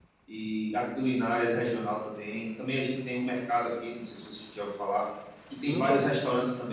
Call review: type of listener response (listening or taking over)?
listening